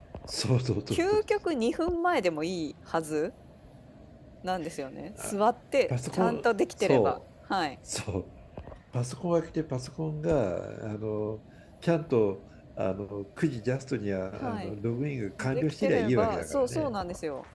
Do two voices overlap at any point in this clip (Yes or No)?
Yes